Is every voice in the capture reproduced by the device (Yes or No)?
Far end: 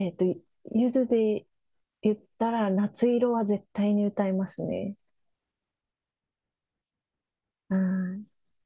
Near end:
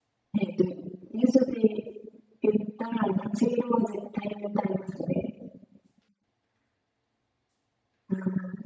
Yes